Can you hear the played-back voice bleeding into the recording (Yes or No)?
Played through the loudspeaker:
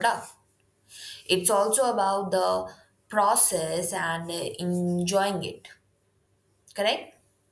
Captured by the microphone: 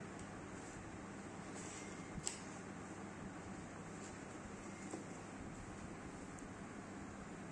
No